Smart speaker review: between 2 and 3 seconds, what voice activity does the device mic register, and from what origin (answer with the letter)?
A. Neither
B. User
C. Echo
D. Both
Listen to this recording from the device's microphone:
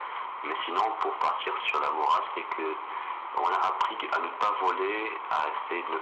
C